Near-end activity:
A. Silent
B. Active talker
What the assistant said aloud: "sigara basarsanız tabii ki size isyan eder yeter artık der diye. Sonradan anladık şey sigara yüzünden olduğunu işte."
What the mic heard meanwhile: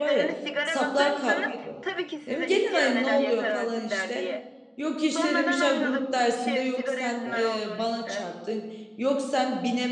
B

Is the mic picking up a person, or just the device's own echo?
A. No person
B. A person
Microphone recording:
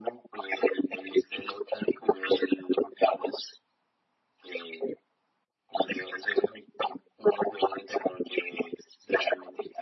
A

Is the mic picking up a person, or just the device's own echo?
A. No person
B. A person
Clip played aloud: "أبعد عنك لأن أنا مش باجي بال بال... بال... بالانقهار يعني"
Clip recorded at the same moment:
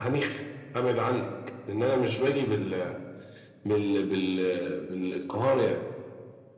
A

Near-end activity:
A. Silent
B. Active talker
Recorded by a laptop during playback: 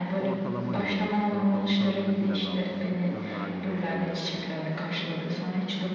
B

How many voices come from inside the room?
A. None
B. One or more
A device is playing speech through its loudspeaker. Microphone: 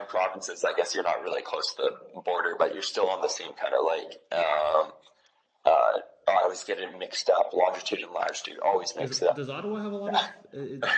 B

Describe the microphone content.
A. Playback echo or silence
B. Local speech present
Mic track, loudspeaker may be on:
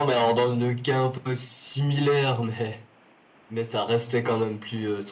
A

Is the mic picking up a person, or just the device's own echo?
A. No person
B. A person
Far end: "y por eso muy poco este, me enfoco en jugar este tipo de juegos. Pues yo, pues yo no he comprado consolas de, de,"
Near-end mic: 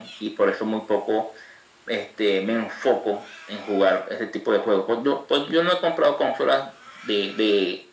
A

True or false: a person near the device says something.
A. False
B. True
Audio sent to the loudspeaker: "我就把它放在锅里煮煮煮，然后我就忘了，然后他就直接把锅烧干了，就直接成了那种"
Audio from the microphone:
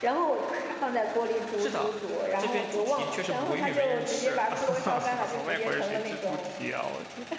B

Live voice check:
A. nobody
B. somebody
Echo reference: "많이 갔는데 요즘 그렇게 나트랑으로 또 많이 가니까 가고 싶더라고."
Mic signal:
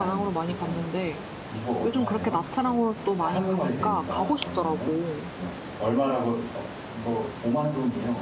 B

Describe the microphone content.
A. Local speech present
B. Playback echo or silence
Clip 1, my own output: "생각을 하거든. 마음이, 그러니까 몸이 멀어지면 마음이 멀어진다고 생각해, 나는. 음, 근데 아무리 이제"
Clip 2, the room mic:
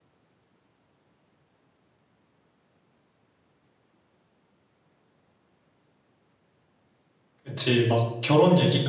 A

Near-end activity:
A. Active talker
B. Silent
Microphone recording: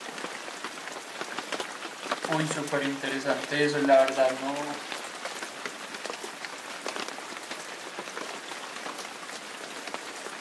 A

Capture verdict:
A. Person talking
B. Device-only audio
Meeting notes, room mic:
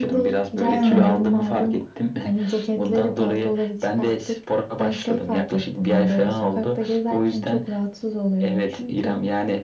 A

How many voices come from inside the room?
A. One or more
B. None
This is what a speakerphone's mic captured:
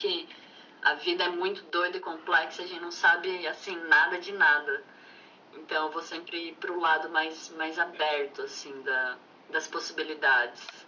B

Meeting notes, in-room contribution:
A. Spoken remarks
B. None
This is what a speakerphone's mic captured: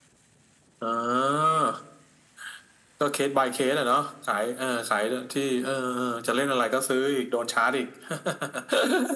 B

